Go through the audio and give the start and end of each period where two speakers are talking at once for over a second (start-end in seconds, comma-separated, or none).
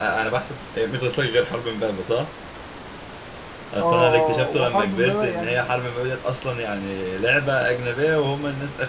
3.8-5.7